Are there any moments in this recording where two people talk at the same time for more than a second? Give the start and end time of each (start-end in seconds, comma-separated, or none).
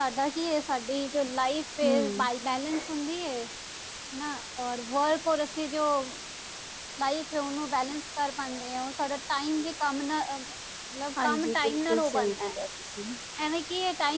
11.2-12.5